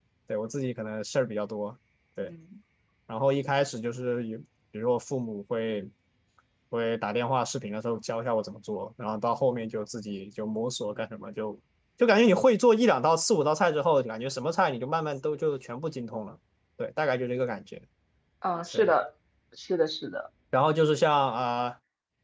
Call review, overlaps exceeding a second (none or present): none